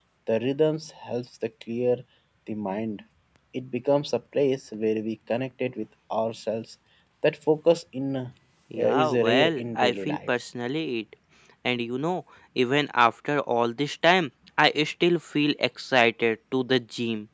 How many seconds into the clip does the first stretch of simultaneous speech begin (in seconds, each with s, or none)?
8.7 s